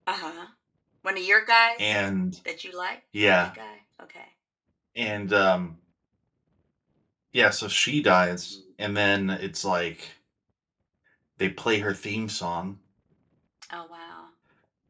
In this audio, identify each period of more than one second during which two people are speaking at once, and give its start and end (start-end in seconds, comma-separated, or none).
none